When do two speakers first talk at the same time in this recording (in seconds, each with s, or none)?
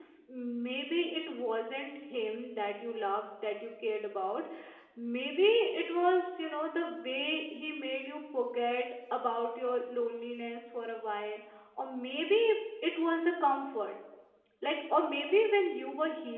none